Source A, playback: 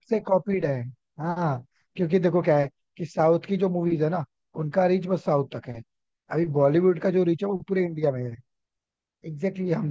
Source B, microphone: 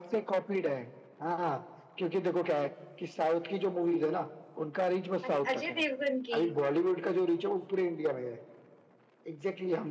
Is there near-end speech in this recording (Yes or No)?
Yes